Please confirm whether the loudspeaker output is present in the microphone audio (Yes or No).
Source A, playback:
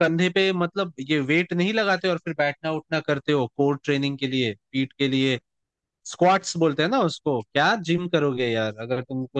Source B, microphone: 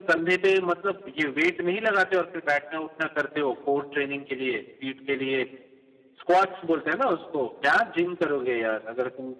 Yes